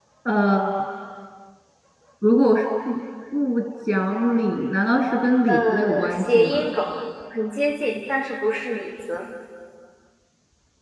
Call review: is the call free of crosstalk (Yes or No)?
No